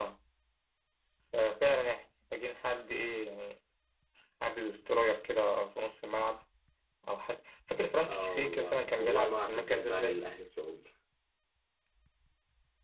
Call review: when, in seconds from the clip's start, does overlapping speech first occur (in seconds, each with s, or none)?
8.1 s